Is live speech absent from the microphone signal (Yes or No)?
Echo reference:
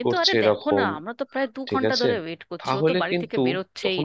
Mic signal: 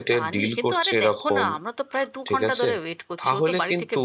Yes